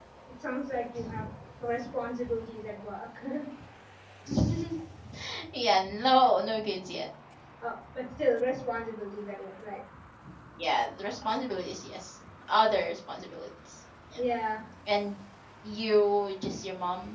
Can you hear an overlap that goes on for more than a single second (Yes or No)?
No